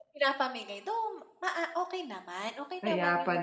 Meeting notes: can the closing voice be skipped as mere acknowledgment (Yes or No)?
No